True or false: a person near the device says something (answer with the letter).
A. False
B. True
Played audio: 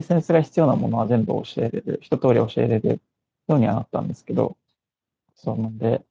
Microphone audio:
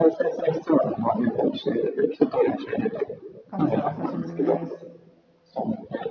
B